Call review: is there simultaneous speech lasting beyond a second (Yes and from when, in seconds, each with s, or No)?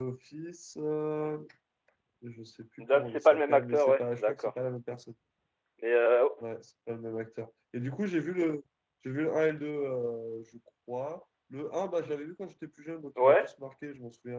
Yes, from 2.8 s